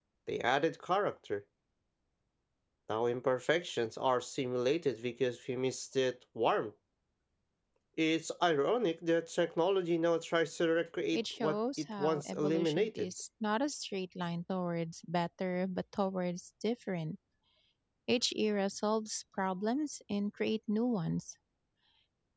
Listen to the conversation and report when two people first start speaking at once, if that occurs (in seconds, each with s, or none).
11.1 s